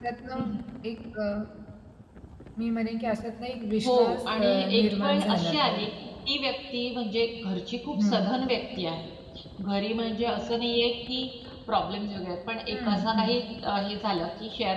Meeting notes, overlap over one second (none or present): present